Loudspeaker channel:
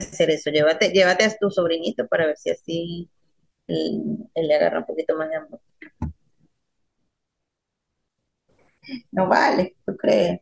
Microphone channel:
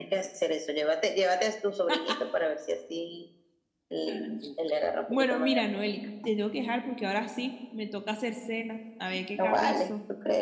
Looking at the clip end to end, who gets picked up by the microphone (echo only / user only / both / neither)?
both